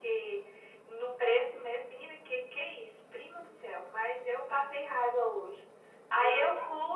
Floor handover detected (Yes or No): No